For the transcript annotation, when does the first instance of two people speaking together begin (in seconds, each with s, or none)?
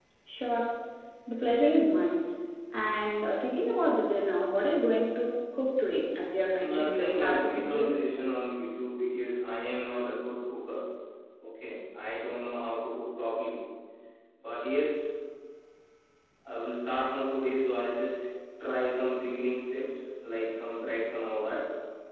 6.6 s